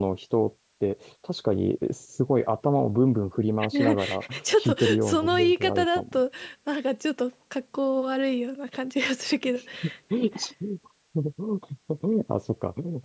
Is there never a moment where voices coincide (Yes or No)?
No